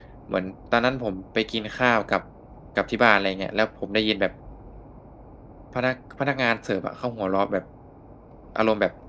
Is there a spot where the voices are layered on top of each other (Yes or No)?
No